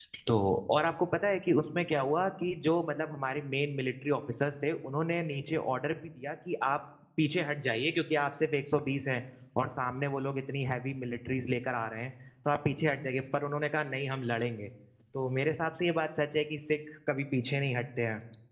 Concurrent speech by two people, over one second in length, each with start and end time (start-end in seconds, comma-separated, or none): none